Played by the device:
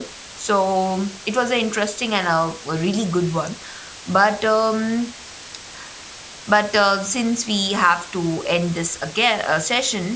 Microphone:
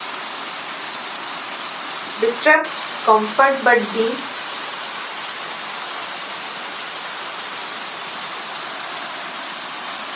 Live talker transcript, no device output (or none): disrupt comfort but being